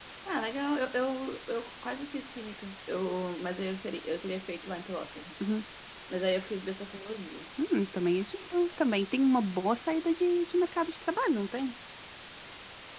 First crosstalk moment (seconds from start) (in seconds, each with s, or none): none